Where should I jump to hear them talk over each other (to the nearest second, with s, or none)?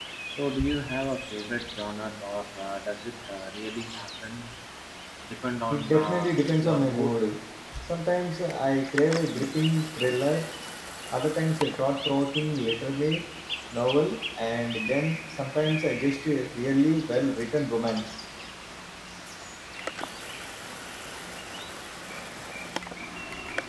6 s